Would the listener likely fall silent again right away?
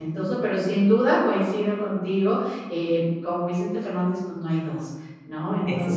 Yes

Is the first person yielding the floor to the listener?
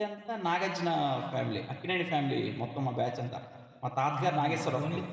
Yes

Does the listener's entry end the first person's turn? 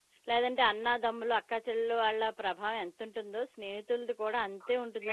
Yes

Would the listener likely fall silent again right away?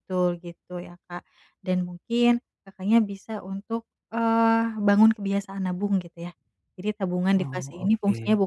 Yes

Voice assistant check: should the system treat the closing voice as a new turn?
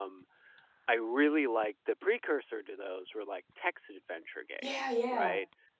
No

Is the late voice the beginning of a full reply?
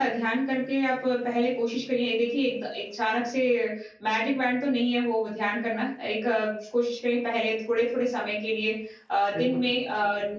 No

